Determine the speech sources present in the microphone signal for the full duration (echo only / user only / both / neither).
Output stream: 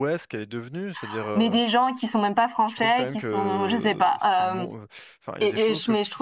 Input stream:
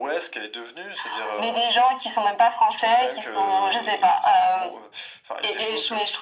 echo only